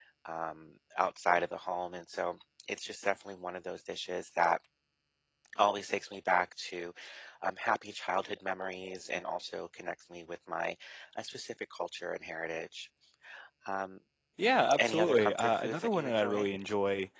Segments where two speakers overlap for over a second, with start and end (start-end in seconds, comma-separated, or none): 14.8-16.5